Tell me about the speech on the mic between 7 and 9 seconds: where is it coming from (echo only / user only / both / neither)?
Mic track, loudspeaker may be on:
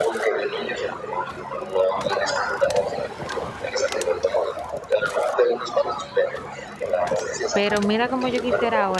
both